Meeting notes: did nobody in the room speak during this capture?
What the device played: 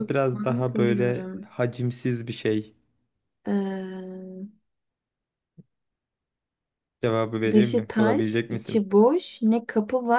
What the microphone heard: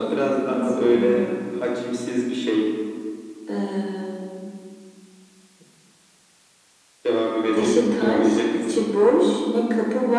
Yes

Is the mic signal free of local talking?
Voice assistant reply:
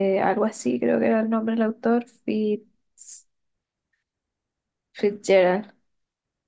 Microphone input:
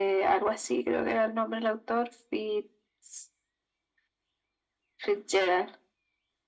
Yes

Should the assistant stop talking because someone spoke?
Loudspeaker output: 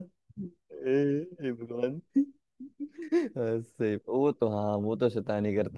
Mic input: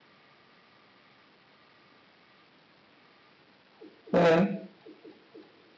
Yes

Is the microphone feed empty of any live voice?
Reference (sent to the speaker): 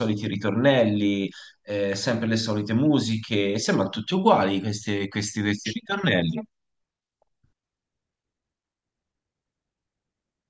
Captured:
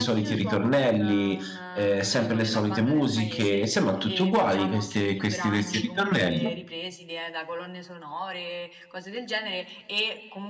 No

